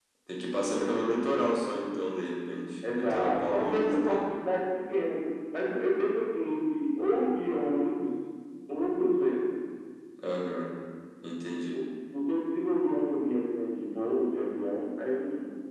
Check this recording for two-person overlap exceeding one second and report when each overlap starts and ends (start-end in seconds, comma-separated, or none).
2.9-4.3